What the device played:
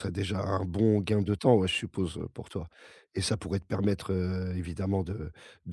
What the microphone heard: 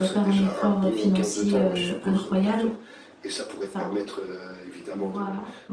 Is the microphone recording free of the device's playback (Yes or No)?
No